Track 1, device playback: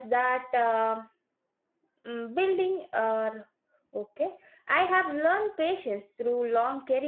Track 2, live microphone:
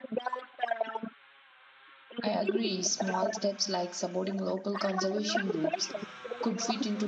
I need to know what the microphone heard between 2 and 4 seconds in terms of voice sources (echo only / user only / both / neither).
both